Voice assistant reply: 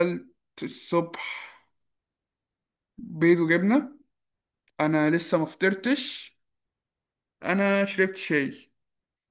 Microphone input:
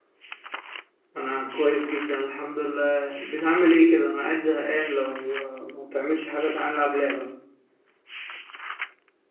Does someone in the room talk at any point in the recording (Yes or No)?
Yes